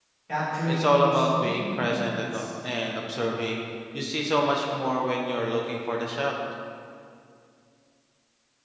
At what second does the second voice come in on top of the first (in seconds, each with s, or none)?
0.7 s